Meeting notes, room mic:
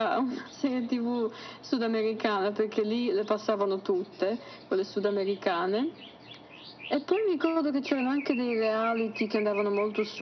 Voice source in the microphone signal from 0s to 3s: echo only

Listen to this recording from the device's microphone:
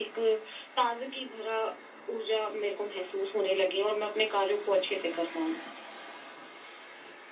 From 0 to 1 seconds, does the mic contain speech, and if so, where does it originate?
echo only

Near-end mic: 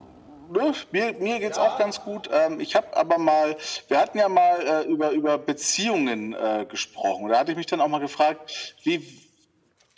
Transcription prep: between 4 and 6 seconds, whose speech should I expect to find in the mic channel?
echo only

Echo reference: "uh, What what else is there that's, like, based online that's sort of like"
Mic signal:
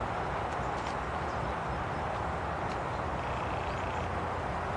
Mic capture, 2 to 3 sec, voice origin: neither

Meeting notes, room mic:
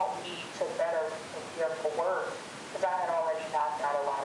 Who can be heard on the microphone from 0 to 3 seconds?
echo only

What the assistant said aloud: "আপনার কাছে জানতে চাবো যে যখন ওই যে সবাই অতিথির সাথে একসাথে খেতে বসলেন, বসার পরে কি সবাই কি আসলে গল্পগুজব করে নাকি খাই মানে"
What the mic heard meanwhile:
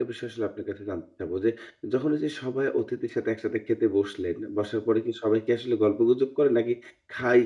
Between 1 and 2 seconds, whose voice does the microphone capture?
echo only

